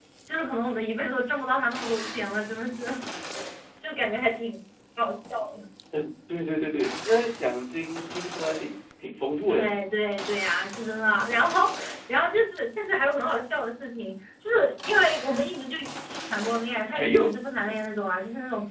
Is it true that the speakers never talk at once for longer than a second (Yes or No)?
Yes